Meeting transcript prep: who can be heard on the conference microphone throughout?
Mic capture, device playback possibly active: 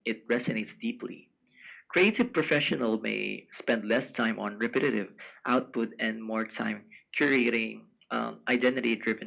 echo only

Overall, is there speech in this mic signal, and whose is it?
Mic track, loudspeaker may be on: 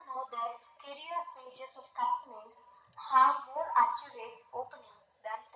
echo only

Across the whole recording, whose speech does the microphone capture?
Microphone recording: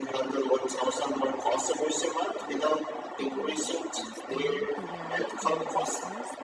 both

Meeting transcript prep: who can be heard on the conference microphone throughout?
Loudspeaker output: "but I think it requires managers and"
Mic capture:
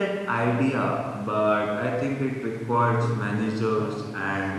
both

